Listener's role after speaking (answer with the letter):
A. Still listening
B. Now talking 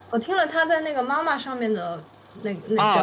B